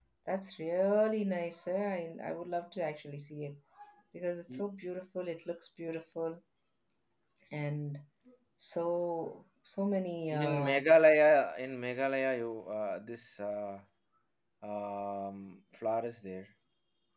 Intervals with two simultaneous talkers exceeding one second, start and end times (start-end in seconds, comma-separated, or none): none